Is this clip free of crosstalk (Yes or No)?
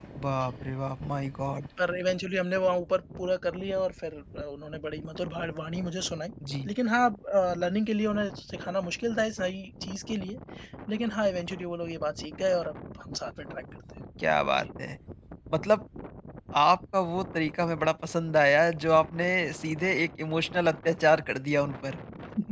Yes